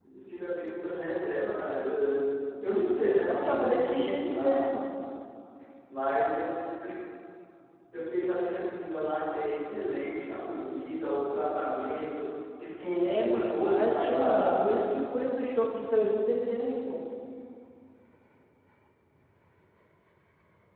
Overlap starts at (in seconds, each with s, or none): 3.2 s